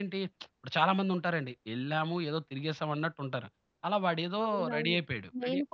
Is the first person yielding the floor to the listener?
Yes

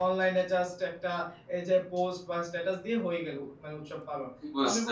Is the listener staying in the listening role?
Yes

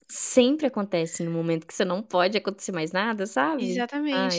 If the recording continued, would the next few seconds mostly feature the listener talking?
Yes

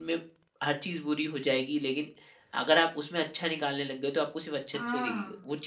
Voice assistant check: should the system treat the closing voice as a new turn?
Yes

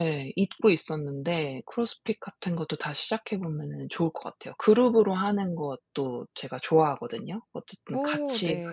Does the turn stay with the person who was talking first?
Yes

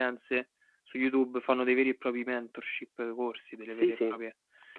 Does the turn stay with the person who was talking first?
No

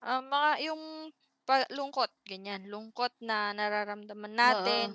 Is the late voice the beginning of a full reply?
No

